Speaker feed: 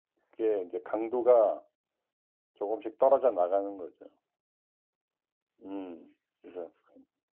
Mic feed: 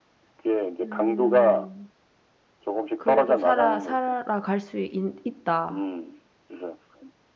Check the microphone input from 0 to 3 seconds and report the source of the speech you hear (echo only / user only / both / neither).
both